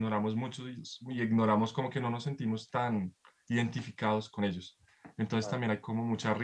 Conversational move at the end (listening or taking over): listening